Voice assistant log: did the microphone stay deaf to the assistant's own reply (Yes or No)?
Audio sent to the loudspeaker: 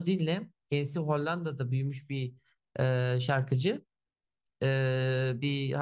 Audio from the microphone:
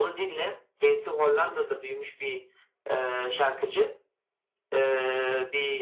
No